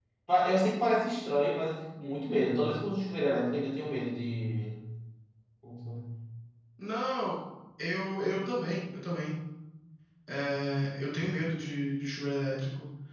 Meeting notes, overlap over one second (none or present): none